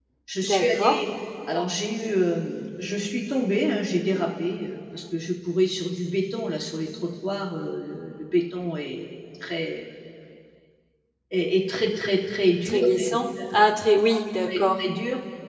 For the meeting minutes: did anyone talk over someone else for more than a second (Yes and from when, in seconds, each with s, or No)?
No